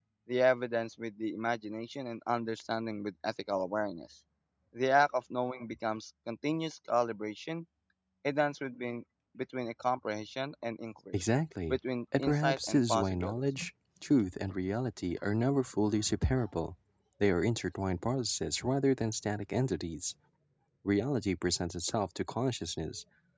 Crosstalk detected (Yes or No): Yes